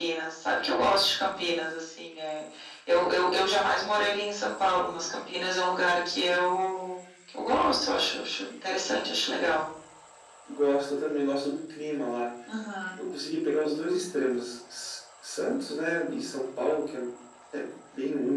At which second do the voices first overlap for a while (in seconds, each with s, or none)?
none